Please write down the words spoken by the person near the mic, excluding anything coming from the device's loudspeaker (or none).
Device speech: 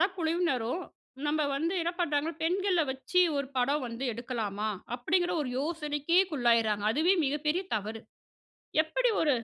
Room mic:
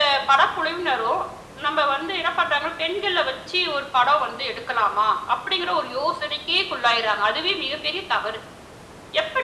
none